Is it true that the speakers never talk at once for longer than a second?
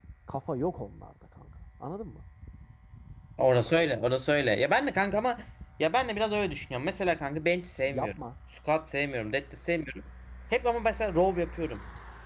Yes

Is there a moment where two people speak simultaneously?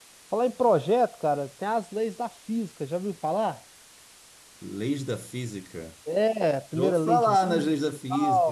Yes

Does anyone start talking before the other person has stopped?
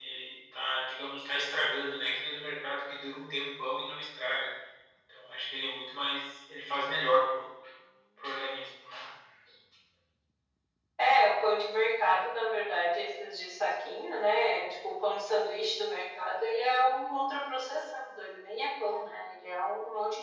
No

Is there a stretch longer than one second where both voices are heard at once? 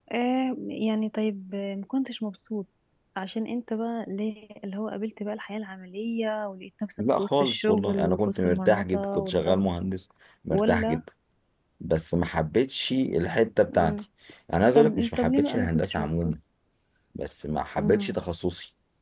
Yes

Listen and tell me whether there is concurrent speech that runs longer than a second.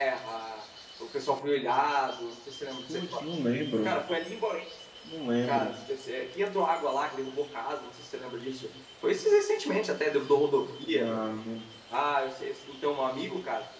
No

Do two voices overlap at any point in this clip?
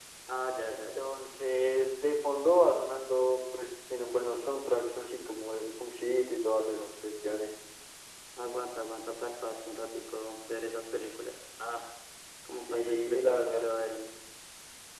Yes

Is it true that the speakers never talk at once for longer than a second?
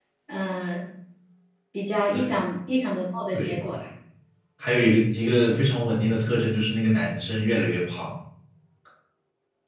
Yes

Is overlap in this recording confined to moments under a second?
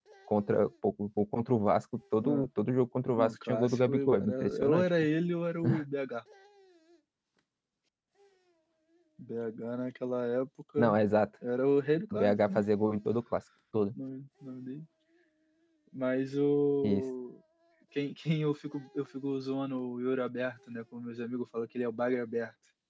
No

